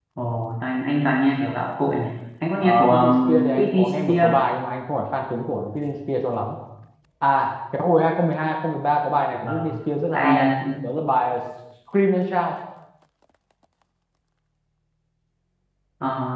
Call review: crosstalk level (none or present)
present